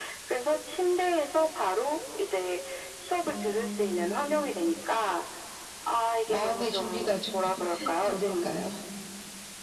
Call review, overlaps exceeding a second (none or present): present